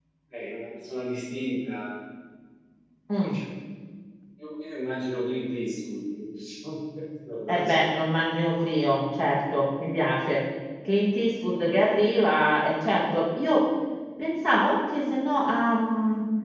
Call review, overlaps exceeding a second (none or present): none